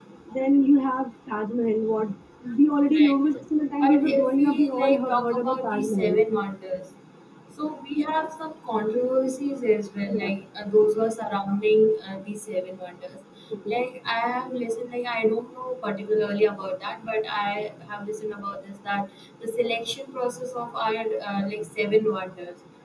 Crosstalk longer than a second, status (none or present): present